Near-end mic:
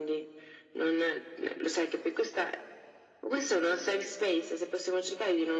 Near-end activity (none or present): none